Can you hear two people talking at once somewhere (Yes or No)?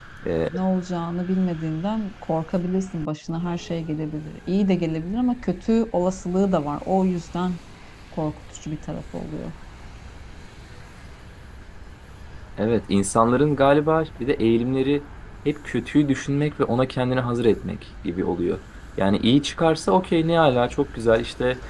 No